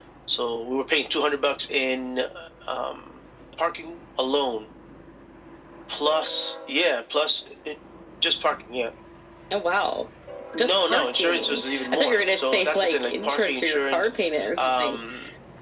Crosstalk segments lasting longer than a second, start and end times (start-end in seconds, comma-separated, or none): 10.6-14.1